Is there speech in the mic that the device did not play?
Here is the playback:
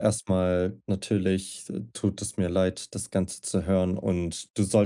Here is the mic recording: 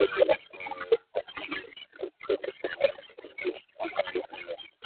No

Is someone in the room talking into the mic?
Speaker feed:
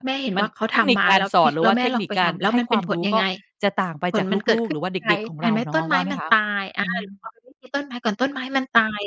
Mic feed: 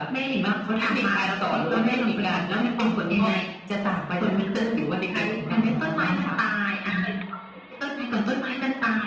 No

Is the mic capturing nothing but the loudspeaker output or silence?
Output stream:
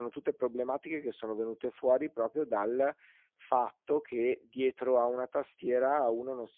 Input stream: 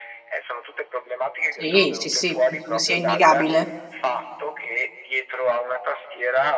No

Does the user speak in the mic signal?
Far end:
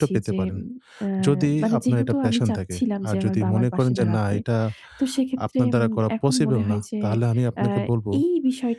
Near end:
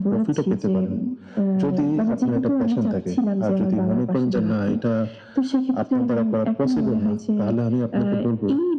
No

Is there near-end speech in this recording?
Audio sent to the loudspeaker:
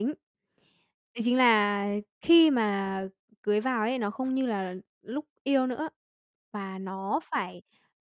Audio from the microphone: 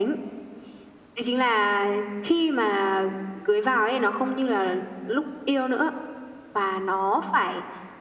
No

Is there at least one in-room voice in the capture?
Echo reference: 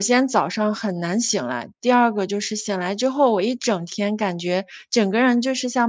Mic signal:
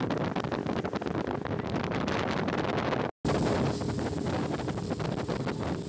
No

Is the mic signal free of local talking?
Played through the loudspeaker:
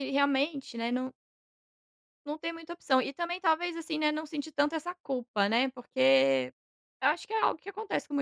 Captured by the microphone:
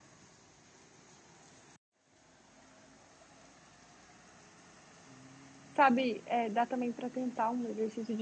No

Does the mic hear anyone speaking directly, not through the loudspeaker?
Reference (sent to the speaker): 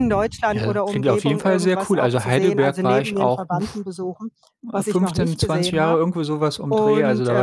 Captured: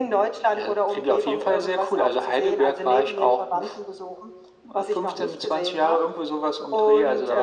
No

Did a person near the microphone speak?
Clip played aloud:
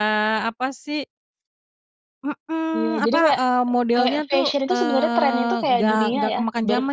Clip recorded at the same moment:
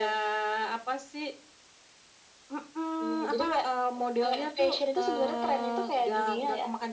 No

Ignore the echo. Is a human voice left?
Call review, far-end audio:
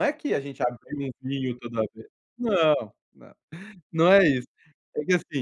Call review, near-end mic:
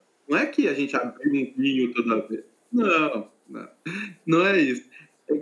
No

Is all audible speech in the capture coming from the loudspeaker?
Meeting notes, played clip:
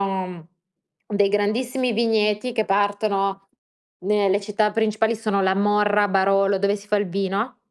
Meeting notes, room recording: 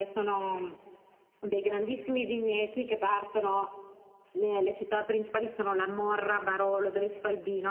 Yes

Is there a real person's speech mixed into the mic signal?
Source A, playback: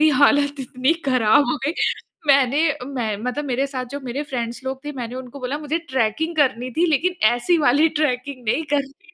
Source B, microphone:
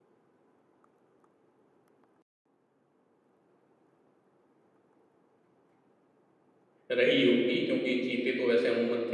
Yes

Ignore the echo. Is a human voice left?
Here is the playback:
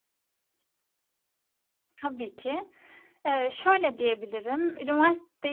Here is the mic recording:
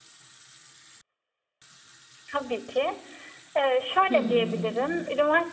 Yes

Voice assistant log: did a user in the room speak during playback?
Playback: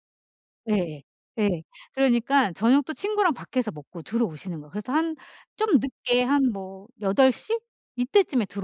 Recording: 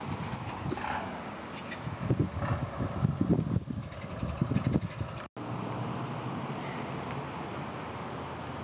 No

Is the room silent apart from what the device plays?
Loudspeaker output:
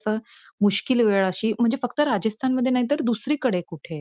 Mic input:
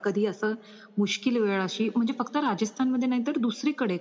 Yes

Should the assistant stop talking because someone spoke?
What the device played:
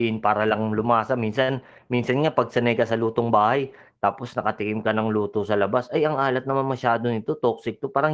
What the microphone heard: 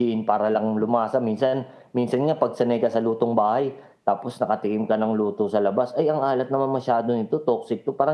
No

